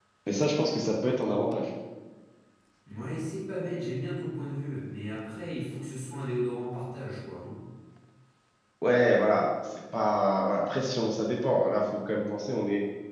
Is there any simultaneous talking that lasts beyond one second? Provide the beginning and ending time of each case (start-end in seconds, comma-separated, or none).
none